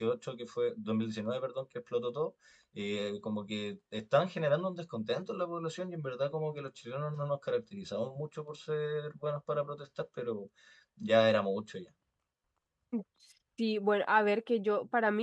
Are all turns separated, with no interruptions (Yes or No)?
Yes